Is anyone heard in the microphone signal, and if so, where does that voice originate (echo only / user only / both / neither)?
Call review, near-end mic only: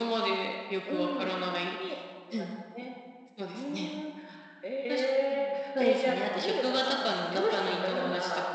both